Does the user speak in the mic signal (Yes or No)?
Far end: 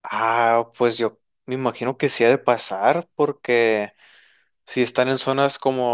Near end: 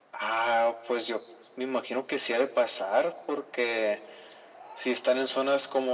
No